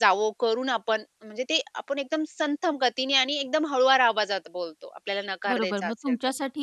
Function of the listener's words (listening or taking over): taking over